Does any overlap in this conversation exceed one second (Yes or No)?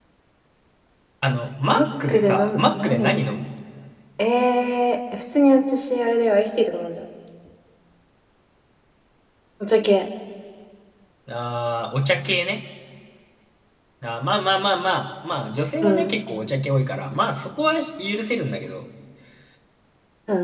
Yes